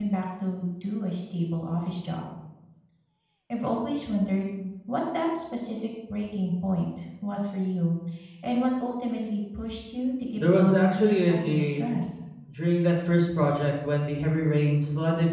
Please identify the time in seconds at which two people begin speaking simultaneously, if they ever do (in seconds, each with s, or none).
10.4 s